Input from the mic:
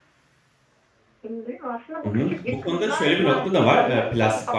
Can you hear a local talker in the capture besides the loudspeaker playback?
Yes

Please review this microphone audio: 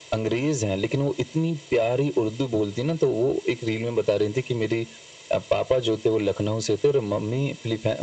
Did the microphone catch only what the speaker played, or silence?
Yes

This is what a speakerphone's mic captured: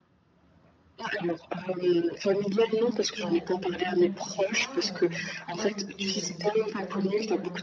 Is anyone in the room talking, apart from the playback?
Yes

